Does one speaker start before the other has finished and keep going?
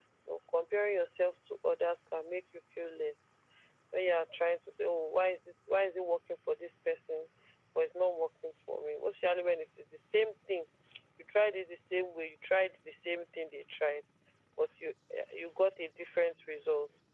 No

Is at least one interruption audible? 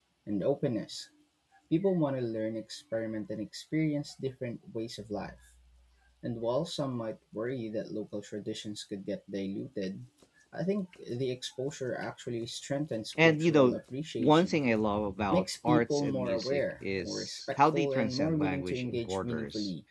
Yes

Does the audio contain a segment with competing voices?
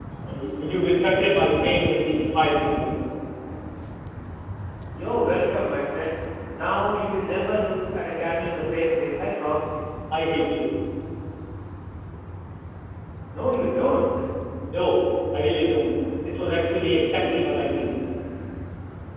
No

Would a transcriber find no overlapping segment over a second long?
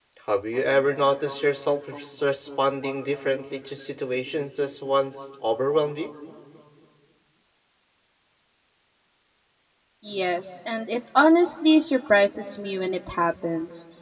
Yes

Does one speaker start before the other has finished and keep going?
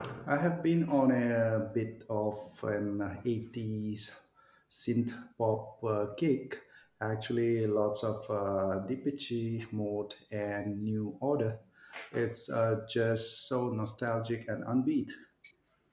No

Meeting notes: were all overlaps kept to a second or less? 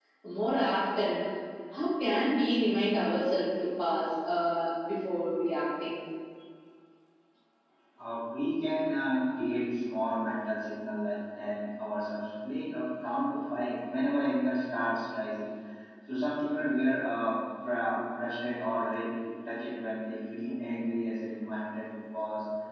Yes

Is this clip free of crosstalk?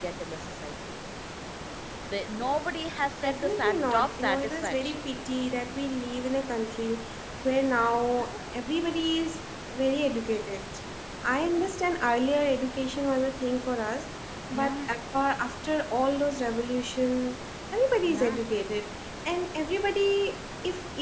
No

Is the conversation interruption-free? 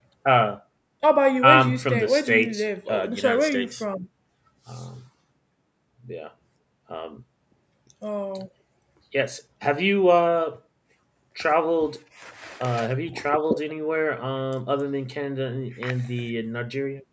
No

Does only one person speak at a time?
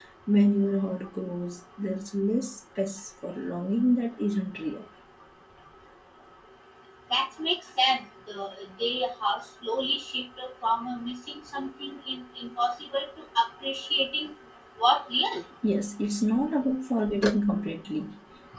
Yes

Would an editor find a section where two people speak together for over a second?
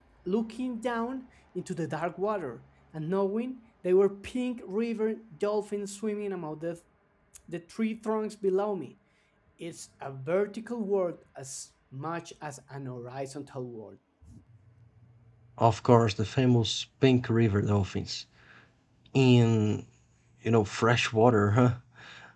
No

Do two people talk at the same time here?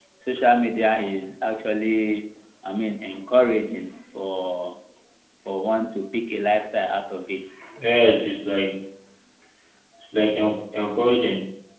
No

